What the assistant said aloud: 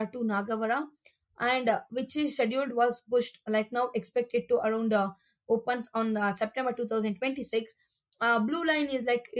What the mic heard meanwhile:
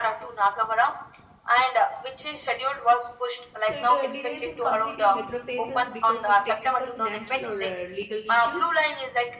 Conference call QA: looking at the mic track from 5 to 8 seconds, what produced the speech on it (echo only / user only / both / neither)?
both